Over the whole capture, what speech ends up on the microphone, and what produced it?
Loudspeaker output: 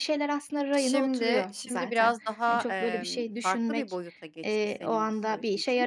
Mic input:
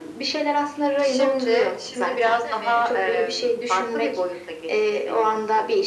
both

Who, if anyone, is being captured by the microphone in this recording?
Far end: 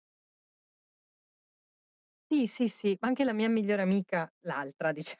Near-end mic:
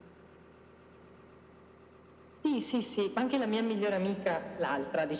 echo only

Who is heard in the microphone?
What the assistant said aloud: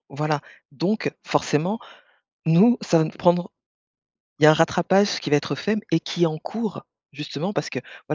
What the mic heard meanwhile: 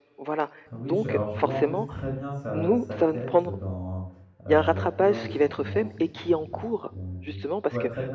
both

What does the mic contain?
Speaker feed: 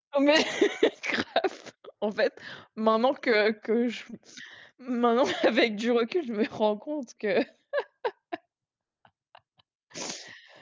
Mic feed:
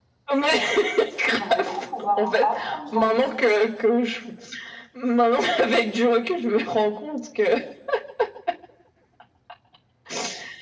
both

